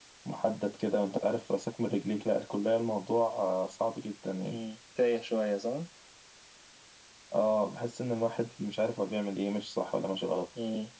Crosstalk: none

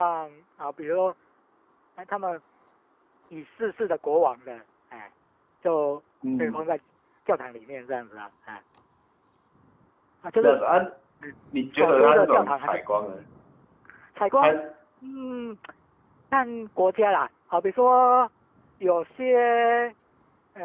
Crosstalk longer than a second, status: present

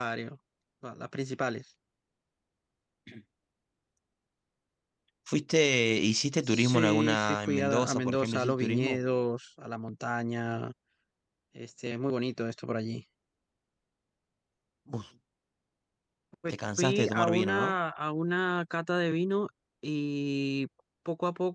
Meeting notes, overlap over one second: present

